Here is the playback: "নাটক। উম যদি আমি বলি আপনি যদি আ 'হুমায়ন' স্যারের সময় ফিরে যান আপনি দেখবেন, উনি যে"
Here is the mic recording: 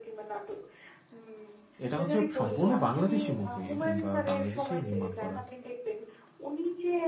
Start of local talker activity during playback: 2 s

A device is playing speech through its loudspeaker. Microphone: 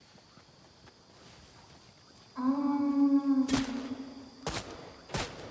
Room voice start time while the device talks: 2 s

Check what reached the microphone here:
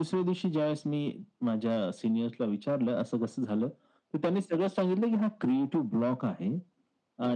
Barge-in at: none

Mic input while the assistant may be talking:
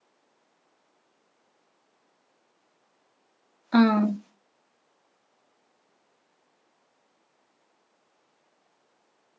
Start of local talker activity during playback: 4 s

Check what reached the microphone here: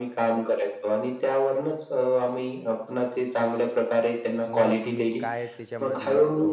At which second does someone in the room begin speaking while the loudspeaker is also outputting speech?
4 s

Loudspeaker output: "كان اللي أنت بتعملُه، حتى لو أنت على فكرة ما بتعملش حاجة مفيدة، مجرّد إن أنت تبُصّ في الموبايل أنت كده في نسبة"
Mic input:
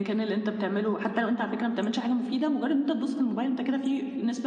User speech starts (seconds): none

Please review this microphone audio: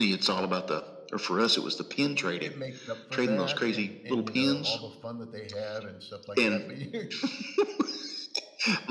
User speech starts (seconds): 2 s

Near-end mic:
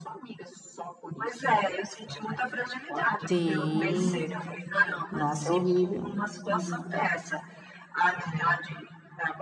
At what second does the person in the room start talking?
3 s

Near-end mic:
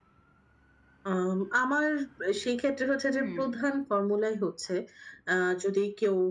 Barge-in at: 3 s

